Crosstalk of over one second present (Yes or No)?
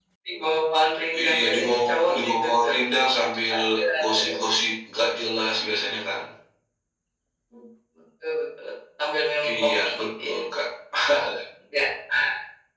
Yes